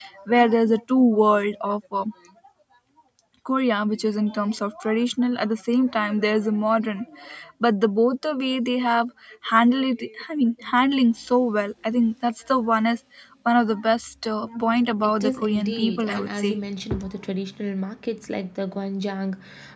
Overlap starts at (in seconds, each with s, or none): 15.0 s